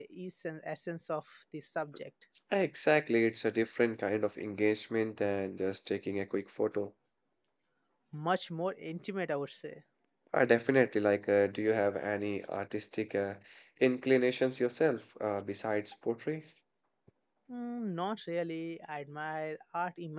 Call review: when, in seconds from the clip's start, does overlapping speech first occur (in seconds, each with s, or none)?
none